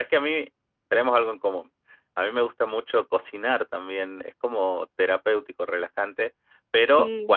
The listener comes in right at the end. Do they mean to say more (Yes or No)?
No